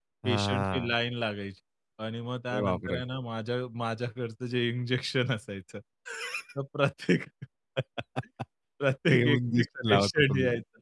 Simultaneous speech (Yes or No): Yes